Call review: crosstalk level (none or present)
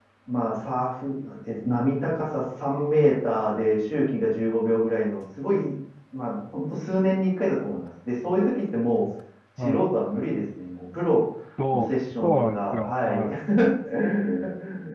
present